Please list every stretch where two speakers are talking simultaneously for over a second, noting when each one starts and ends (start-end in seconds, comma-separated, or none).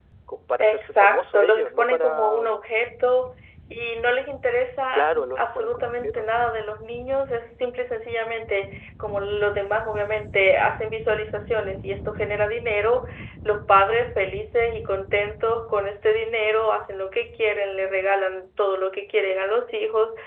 0.6-2.4, 4.9-6.3